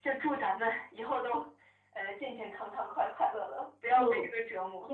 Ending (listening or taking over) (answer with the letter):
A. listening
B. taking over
B